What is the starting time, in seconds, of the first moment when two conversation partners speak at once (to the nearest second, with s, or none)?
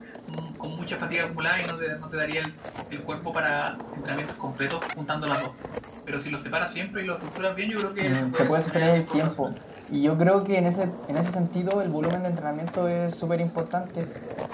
8 s